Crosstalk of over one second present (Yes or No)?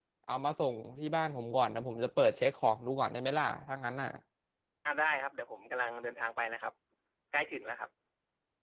No